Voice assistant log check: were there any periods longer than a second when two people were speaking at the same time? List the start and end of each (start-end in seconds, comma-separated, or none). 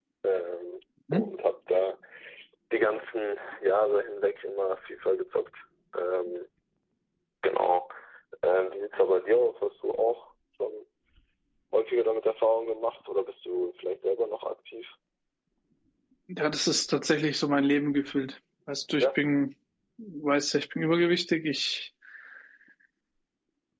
none